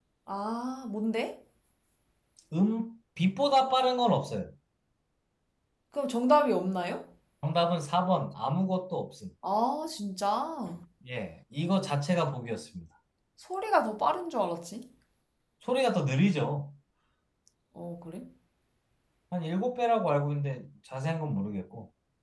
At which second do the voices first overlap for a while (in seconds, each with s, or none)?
none